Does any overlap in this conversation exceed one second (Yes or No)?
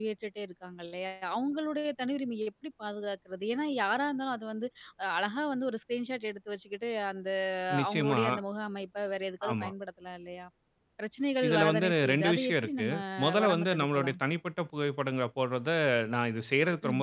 Yes